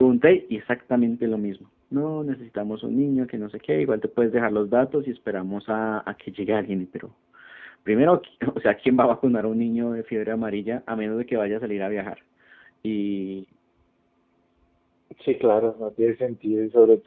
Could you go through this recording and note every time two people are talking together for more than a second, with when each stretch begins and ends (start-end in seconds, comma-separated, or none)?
none